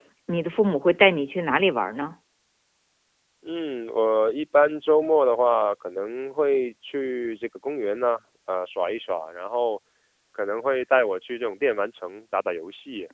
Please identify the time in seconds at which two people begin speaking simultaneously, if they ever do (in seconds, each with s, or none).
none